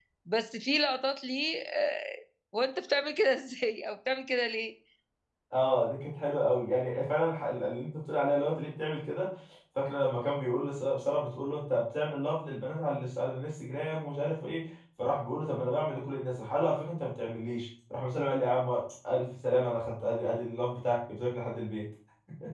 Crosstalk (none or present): none